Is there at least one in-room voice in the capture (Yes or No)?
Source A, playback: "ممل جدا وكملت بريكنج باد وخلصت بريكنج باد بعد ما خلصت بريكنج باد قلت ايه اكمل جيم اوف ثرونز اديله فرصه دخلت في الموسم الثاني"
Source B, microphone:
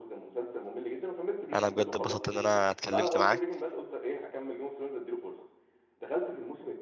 Yes